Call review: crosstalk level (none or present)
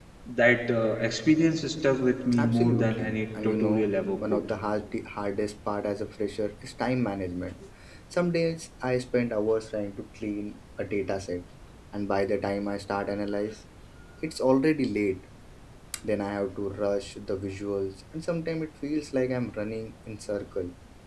present